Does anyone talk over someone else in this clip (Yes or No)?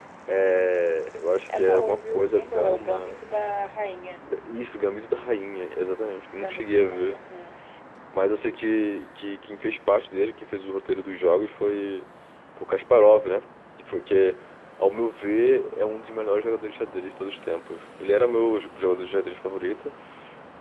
Yes